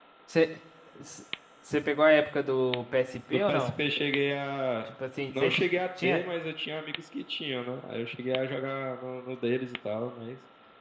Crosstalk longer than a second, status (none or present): none